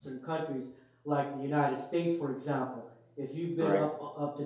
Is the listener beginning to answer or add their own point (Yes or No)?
No